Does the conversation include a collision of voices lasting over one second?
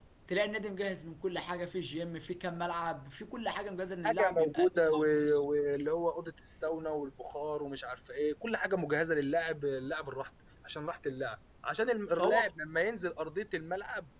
Yes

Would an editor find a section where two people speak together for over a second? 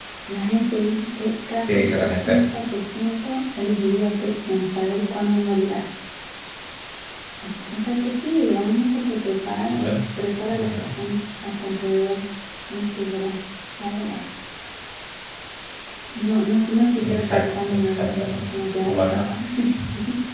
Yes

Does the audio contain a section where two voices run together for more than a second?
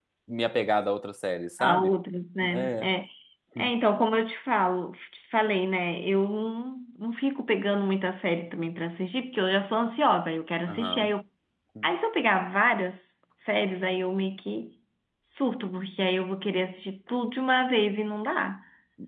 No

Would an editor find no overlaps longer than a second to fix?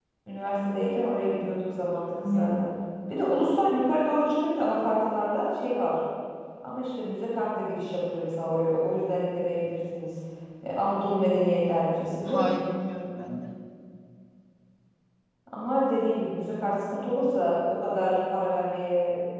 Yes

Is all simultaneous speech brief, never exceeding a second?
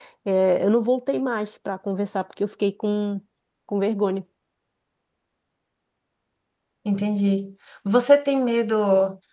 Yes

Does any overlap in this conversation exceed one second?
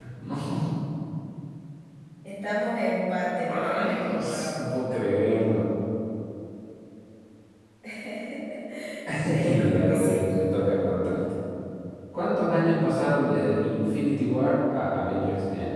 Yes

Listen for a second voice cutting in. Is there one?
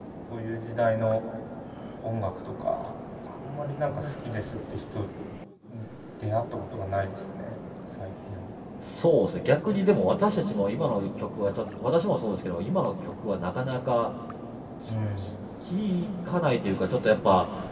No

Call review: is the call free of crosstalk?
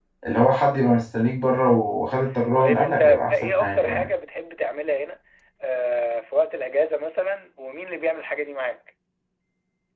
No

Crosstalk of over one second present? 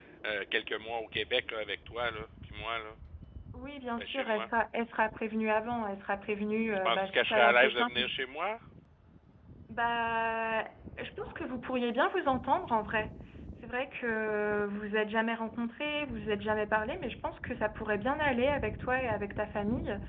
Yes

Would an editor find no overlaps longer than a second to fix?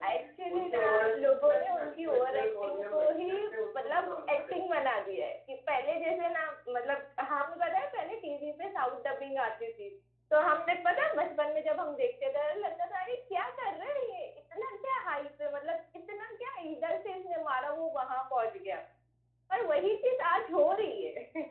No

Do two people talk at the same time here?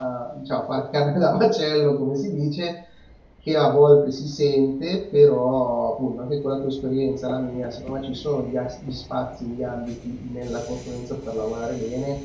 No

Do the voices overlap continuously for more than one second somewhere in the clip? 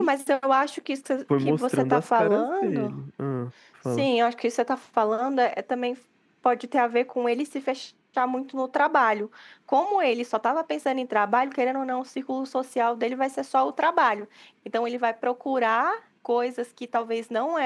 Yes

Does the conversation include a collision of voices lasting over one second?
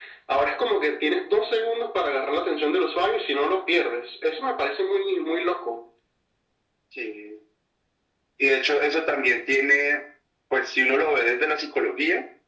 No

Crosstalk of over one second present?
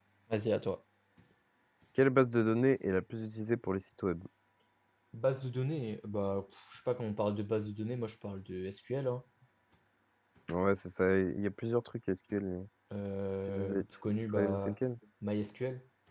Yes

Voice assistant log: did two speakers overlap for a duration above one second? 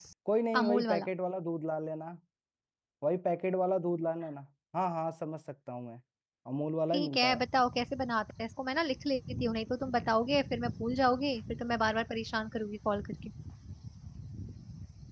No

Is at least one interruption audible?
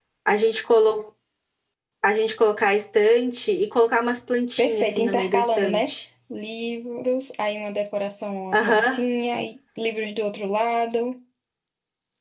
Yes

